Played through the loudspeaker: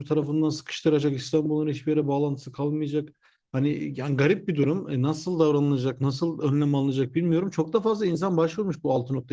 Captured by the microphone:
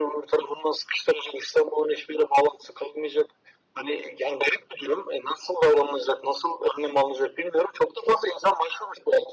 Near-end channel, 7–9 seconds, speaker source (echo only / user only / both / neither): echo only